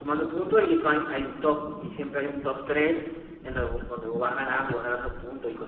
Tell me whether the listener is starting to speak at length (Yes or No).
No